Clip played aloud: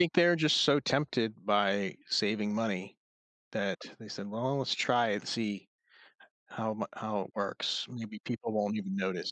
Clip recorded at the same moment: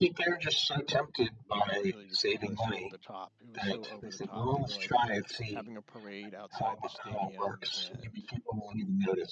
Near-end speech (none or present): present